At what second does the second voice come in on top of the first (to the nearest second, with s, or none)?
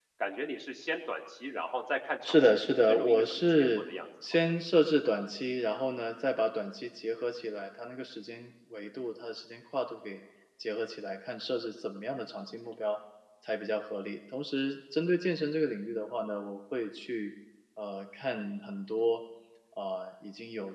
2 s